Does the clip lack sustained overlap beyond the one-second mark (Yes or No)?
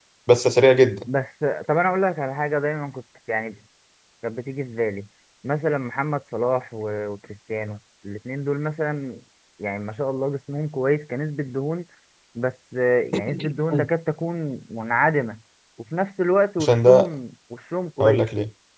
Yes